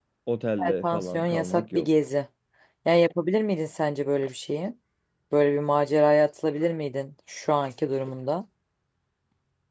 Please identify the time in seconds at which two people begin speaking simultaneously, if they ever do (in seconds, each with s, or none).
0.6 s